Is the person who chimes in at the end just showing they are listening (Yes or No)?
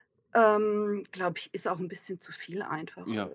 No